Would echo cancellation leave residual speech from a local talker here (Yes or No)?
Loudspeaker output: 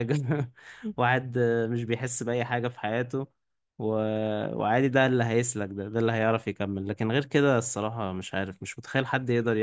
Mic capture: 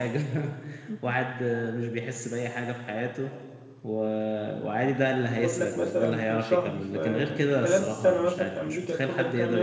Yes